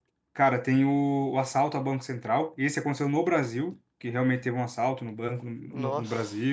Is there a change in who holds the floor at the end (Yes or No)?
No